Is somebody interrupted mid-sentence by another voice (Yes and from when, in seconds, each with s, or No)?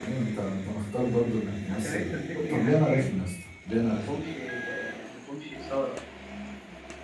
Yes, from 1.7 s